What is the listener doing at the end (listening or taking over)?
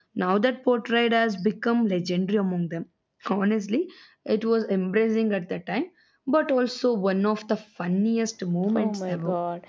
taking over